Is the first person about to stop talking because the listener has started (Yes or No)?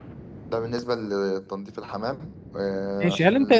Yes